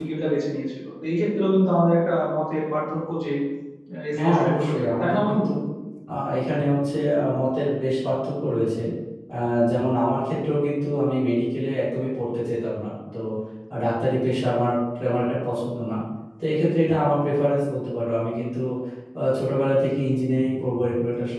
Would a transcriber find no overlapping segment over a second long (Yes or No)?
No